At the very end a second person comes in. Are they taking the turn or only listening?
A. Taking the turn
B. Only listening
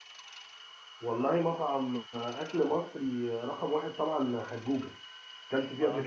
A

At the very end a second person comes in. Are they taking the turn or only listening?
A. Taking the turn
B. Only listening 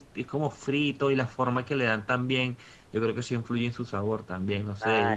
A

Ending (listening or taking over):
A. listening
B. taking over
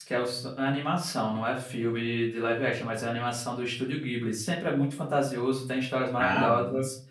A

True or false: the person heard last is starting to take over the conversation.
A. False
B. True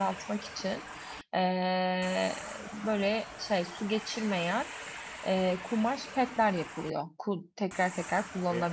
B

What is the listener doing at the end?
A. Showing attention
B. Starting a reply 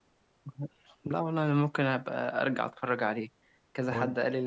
A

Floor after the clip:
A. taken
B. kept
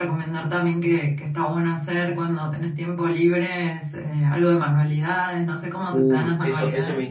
A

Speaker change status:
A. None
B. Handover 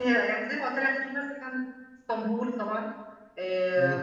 A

